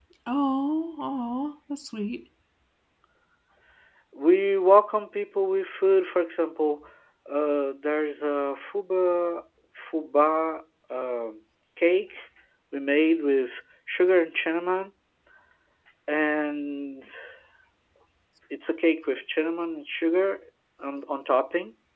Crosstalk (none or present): none